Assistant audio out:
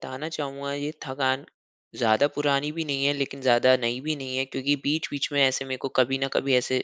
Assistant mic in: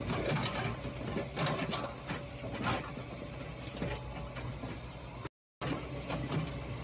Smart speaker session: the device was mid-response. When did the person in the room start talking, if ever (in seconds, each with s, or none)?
none